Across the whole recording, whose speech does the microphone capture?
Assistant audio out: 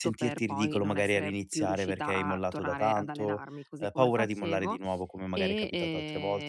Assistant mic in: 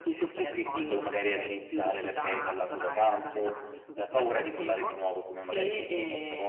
echo only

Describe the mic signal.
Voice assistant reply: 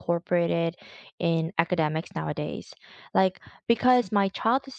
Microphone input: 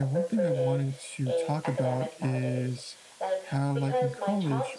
both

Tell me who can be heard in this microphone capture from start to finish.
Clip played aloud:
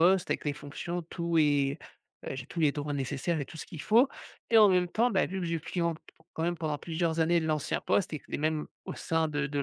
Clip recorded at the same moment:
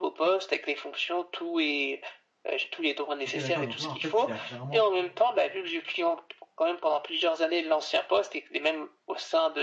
both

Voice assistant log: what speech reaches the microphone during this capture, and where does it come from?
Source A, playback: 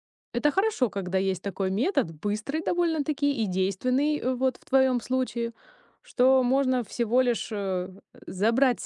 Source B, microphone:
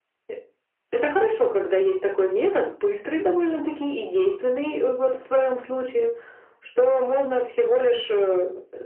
echo only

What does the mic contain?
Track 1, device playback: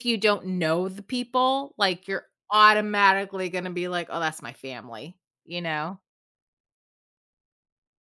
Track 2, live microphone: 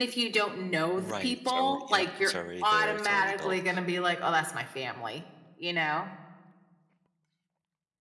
both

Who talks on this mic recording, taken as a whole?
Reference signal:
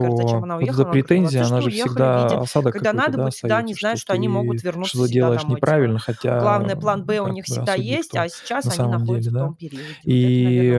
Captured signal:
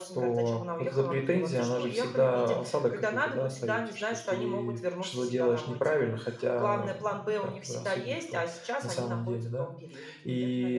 echo only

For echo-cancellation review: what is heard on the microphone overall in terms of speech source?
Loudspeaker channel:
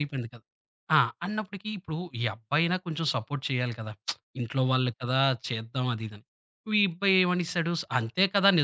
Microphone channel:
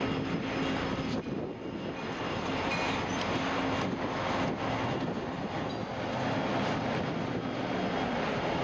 neither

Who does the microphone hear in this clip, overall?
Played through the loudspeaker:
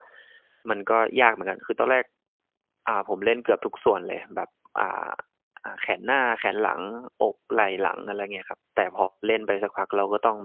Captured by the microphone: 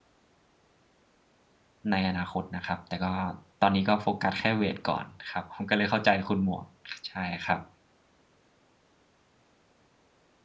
user only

